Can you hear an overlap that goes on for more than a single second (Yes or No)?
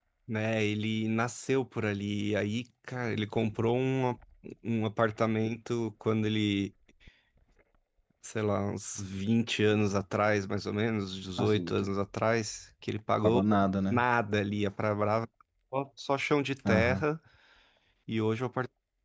No